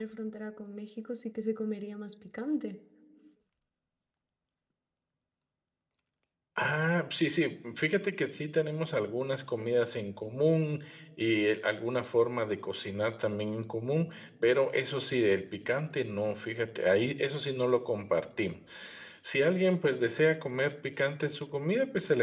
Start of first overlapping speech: none

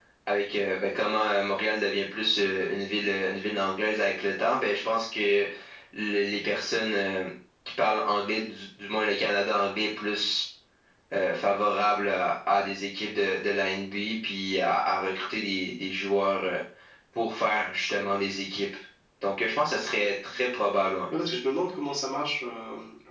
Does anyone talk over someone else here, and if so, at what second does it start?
none

